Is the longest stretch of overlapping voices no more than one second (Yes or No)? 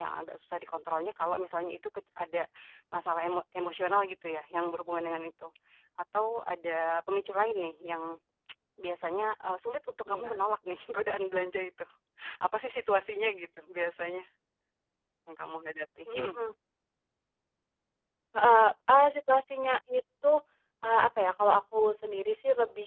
Yes